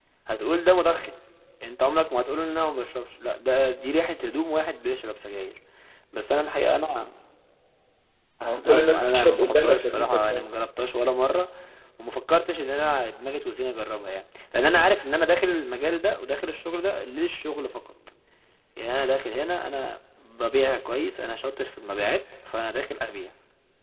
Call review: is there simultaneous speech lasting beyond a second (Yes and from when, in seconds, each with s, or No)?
Yes, from 8.7 s